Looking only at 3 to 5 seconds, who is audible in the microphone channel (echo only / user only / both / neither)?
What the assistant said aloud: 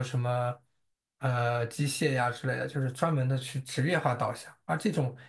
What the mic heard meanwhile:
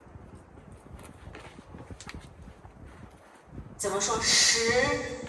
user only